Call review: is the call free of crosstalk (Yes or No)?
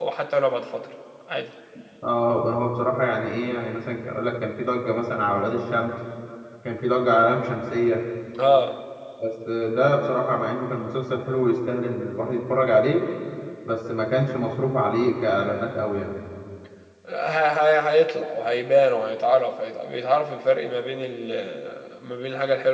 Yes